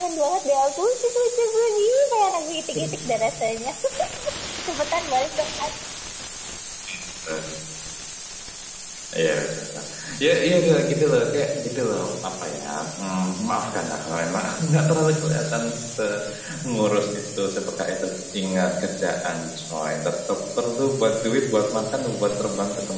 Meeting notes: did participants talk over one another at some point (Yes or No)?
No